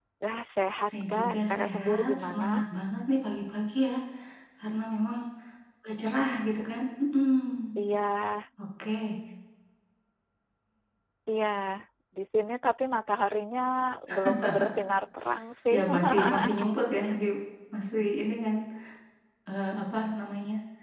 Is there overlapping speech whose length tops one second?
Yes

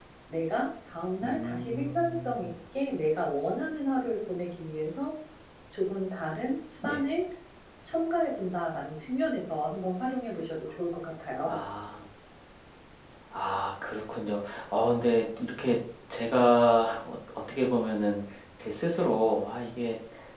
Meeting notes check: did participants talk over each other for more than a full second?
Yes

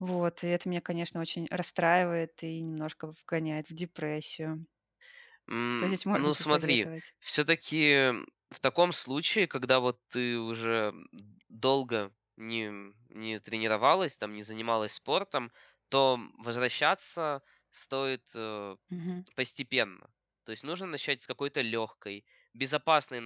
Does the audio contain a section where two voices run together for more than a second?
Yes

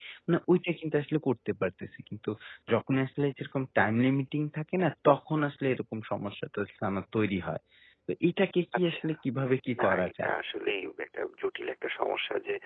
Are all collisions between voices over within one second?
Yes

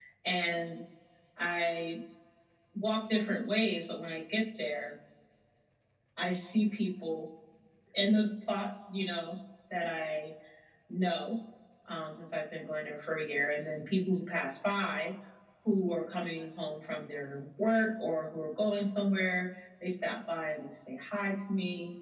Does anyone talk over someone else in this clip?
No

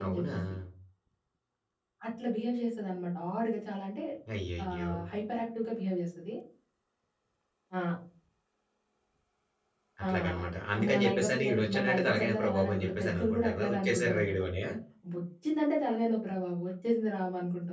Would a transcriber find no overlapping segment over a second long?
No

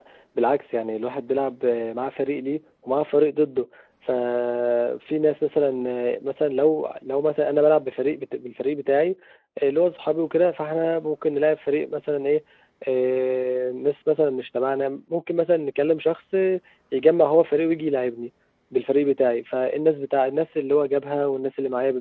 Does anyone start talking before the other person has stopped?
No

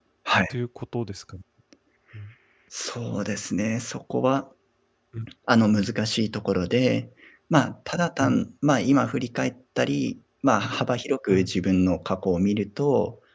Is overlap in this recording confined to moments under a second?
Yes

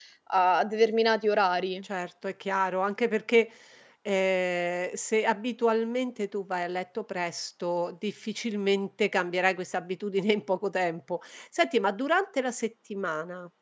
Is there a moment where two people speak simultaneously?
No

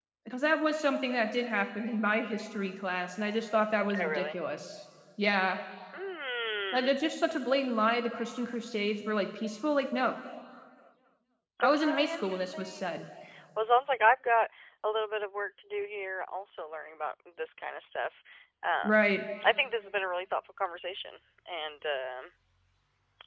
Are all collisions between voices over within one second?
No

